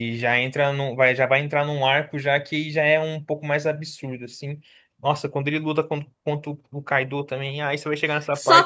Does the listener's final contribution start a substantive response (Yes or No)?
Yes